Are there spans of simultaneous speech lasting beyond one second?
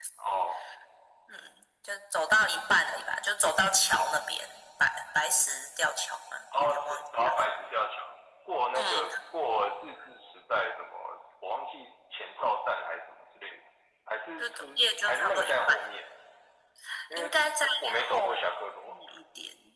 Yes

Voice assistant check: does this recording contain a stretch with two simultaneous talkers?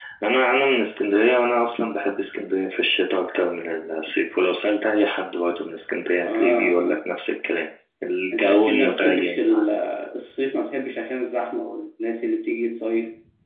Yes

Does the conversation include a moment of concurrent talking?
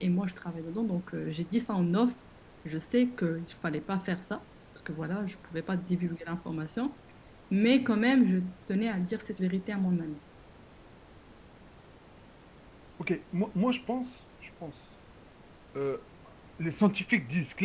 No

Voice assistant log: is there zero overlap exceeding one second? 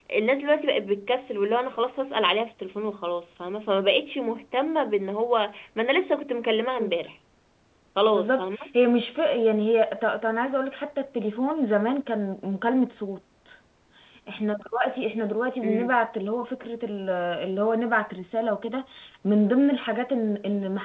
Yes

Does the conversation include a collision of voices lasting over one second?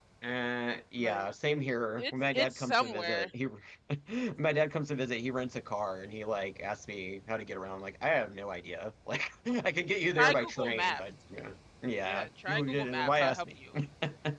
Yes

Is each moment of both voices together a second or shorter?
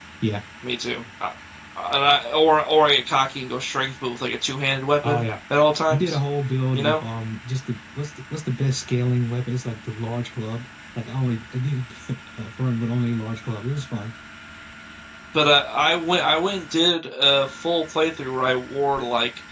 Yes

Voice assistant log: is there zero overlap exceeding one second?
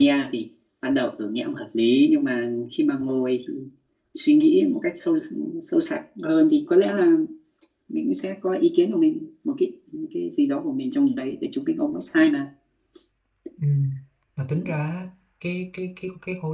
Yes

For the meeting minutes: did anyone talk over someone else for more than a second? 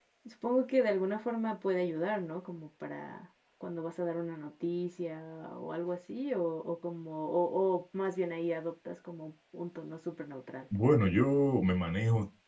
No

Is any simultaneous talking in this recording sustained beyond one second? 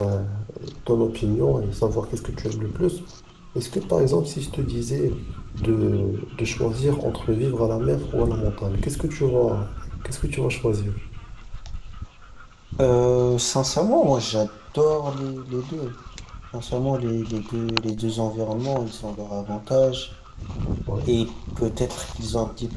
No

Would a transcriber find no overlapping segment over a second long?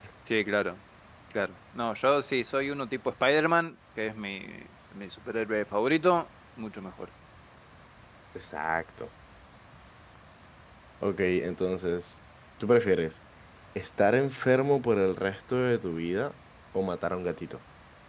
Yes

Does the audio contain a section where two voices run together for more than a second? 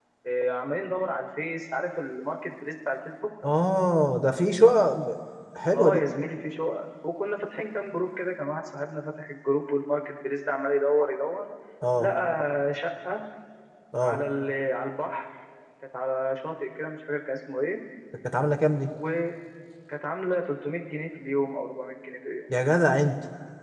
No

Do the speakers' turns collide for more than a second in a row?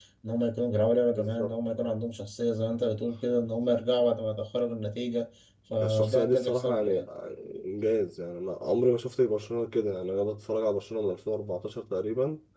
Yes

